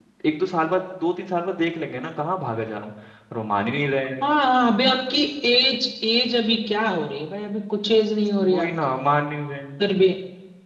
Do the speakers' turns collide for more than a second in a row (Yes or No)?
No